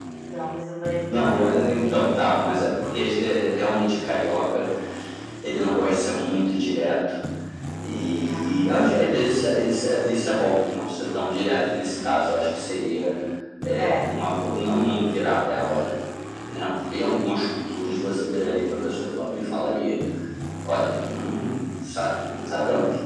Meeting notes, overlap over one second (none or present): present